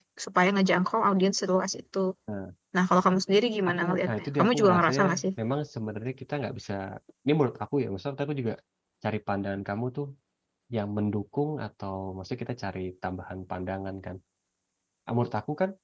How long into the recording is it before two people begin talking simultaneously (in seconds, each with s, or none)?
3.7 s